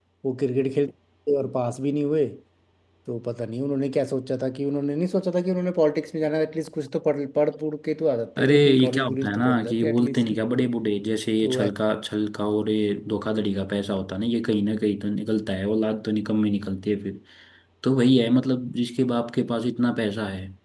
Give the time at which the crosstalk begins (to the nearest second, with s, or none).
8 s